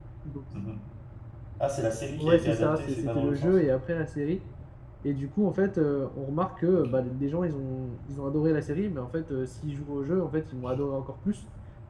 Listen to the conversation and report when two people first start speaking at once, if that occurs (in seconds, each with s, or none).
2.2 s